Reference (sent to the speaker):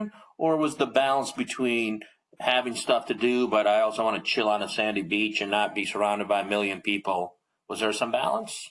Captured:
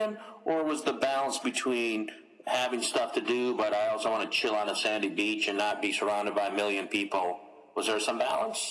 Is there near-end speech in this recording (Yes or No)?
No